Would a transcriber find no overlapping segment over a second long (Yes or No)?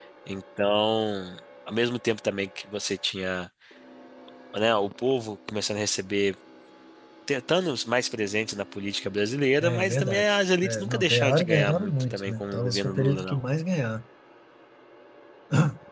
No